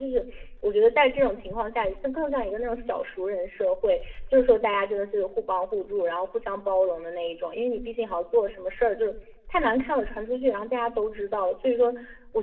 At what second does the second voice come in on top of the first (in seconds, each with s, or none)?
none